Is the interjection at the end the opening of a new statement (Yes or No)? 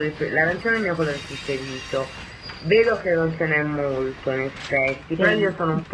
No